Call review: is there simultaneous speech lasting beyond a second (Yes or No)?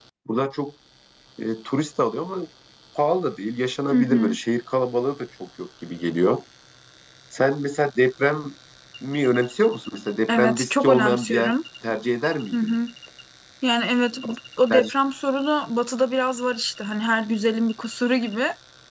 Yes